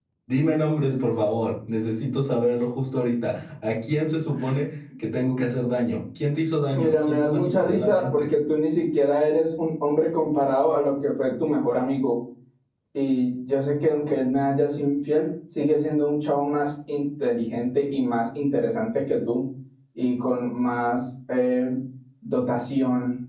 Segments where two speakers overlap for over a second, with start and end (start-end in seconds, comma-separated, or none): 6.7-8.3